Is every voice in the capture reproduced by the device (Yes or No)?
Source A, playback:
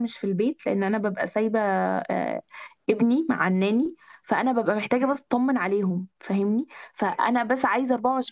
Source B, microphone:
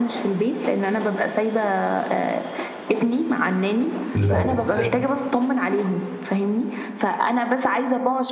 No